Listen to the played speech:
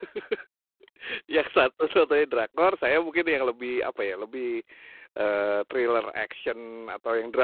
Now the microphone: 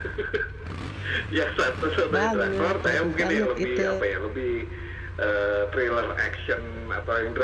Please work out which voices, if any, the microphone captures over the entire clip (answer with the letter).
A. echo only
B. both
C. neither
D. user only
B